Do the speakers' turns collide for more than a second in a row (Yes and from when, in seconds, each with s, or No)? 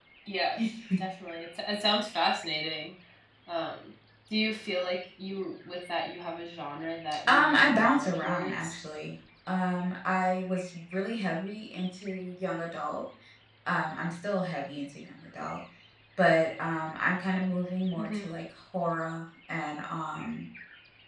Yes, from 7.3 s